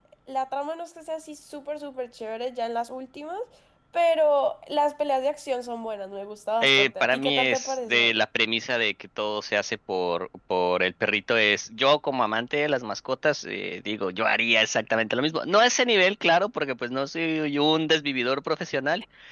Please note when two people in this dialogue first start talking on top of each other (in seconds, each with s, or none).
6.6 s